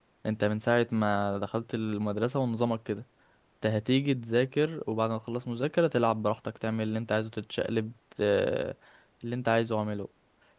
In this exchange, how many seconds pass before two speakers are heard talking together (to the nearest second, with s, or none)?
none